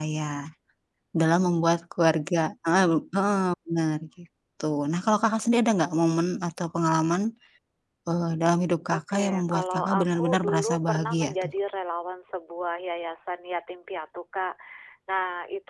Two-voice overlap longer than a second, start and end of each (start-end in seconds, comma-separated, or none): 8.9-11.5